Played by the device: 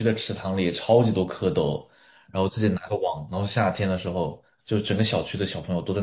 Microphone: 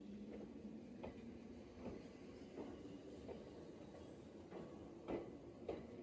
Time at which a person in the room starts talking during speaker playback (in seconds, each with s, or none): none